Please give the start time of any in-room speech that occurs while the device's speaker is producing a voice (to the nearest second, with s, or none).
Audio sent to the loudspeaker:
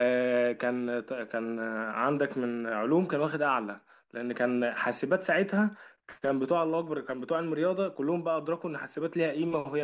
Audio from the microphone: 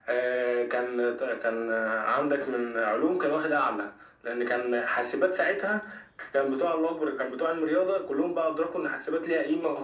none